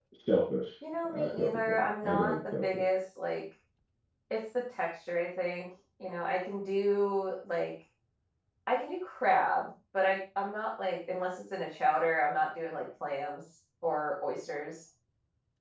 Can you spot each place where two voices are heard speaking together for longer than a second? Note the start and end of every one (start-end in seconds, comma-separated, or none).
1.1-2.8